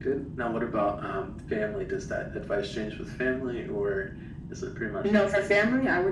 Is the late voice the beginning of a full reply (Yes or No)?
Yes